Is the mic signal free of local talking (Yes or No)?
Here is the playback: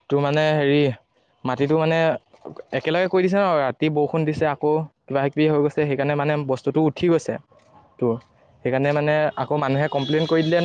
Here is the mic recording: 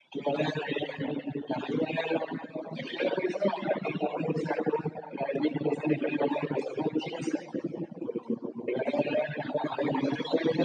Yes